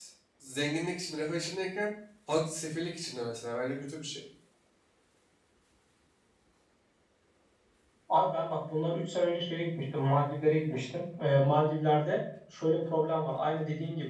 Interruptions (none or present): none